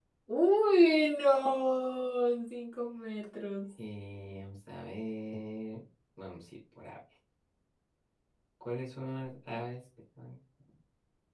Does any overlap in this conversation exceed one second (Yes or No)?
No